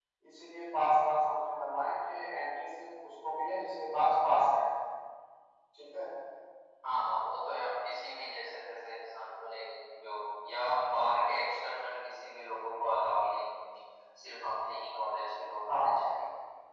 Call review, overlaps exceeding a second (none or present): none